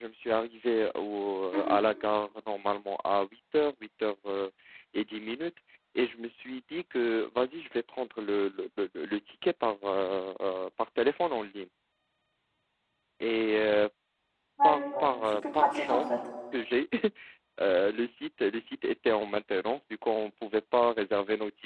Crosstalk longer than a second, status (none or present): present